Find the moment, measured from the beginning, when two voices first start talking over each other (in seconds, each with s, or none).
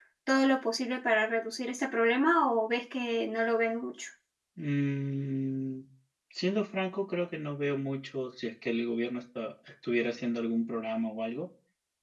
none